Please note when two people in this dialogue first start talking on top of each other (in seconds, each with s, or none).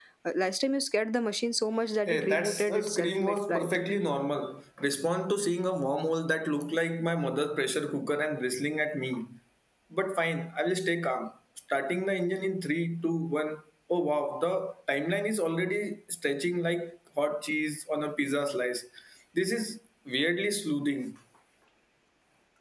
2.1 s